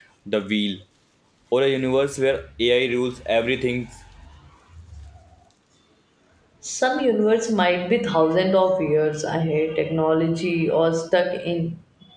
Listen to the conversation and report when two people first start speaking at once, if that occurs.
none

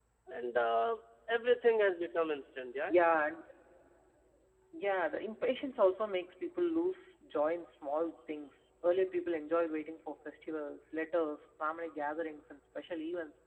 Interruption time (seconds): none

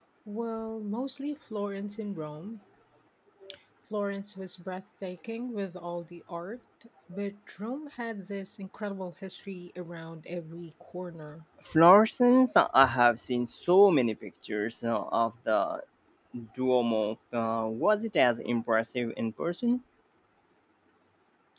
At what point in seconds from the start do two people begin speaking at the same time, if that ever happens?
none

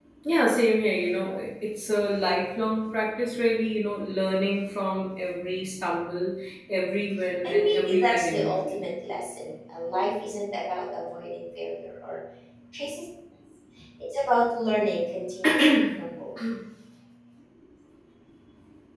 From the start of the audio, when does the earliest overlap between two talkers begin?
7.4 s

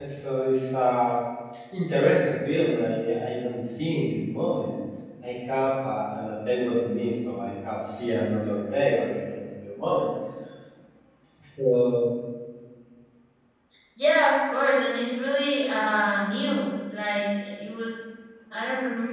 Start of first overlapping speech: none

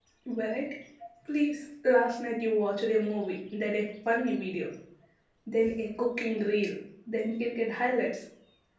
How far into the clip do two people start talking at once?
none

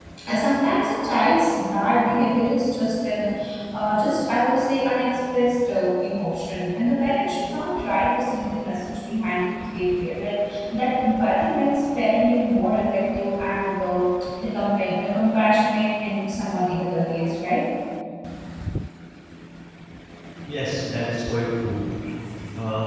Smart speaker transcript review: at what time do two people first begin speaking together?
none

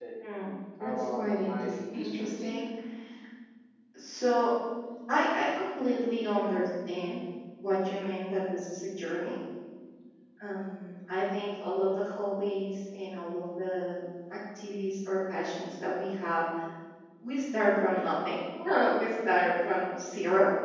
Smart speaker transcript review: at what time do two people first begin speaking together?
0.8 s

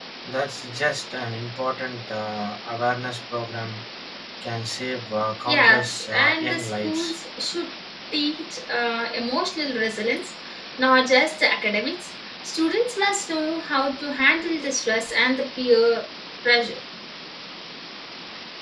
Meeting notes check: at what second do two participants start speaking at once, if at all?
5.5 s

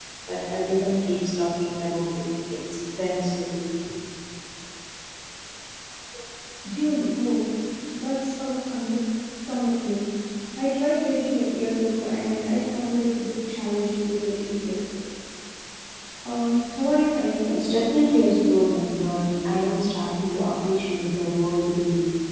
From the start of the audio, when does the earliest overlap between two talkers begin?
none

